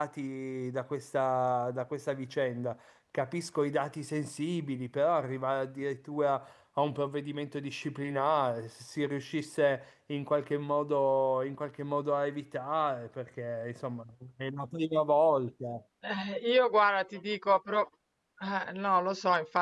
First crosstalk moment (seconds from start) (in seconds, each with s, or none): none